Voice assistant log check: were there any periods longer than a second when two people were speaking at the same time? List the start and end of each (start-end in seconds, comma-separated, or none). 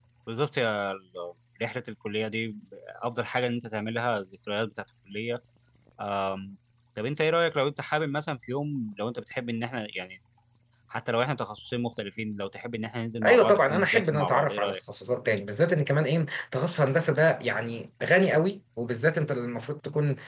13.2-14.8